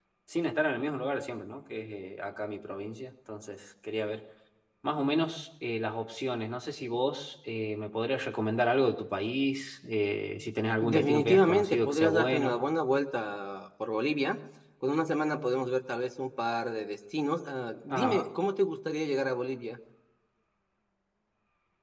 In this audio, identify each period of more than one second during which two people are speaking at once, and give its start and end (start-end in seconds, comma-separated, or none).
10.8-12.7